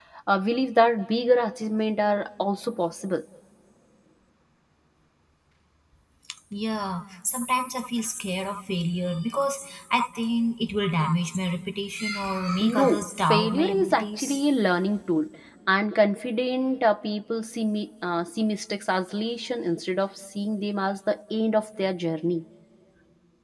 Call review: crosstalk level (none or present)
present